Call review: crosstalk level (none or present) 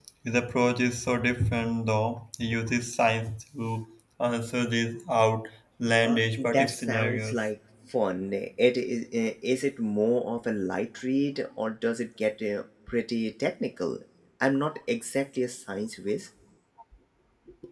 present